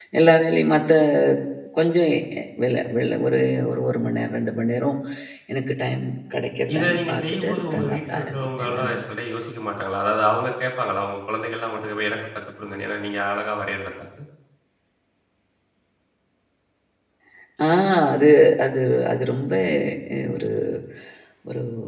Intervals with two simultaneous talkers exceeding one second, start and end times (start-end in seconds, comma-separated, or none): 6.7-8.9